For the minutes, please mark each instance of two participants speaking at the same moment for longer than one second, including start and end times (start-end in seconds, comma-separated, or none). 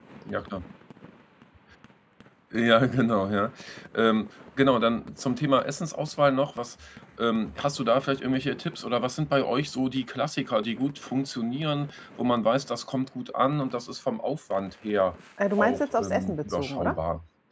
15.6-17.0